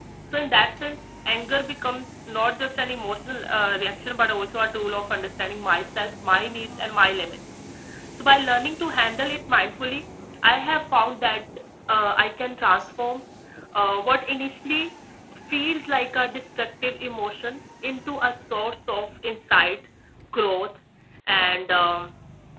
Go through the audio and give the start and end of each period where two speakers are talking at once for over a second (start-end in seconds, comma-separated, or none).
none